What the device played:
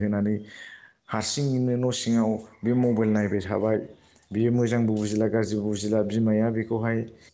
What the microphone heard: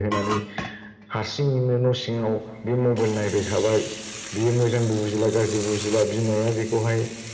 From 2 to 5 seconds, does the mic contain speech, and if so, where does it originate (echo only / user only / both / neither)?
echo only